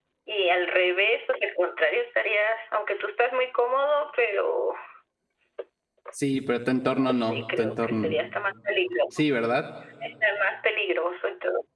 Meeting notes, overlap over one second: present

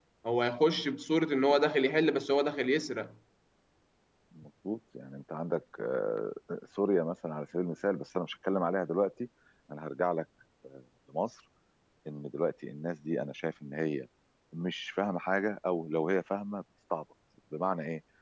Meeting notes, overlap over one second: none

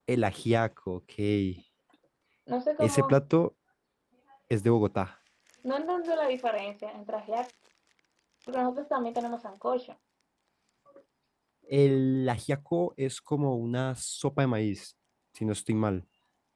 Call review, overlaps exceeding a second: none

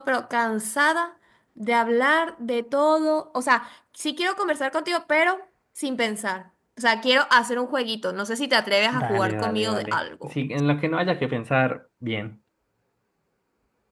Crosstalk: present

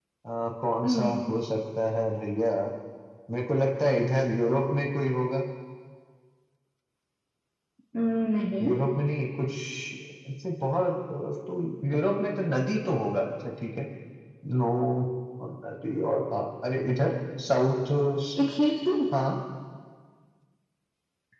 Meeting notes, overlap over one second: none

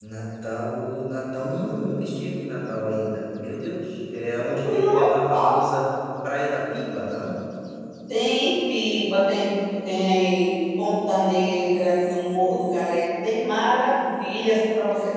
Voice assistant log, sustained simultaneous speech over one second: none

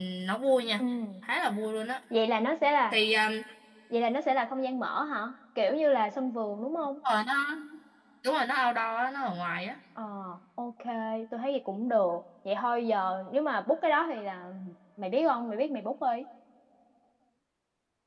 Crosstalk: none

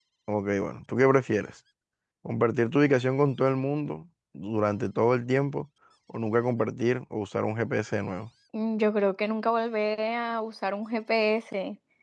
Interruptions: none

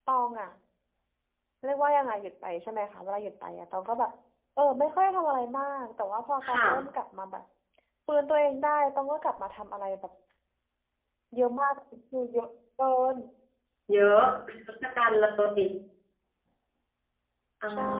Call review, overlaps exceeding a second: none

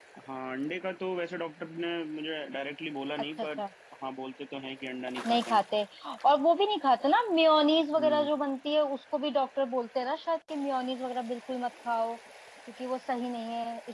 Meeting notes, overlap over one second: none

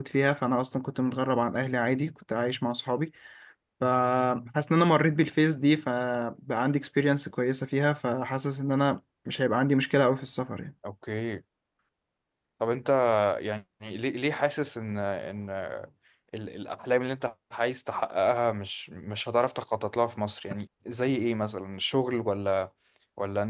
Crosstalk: none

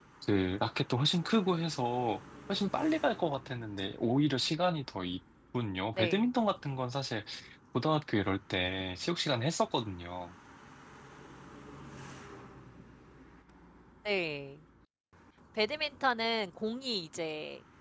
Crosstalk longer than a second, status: none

